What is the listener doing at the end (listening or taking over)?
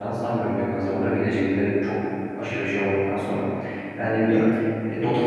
listening